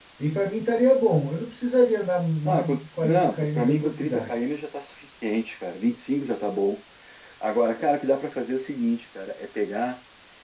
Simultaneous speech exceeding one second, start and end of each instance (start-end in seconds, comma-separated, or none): 2.5-4.3